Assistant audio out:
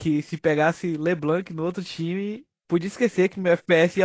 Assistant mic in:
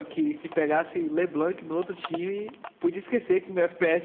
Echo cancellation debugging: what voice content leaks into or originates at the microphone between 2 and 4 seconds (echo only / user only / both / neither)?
echo only